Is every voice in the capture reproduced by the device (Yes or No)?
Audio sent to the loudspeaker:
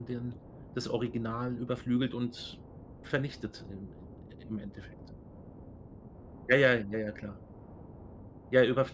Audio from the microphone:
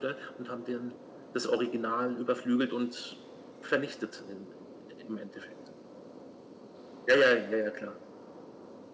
Yes